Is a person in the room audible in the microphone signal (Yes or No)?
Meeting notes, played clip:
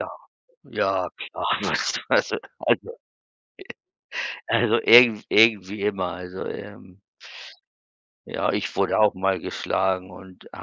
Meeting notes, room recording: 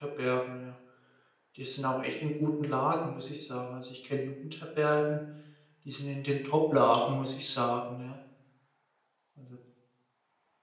Yes